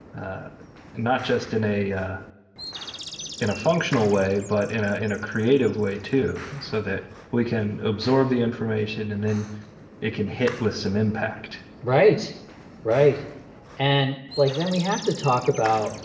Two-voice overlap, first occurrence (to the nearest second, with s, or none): none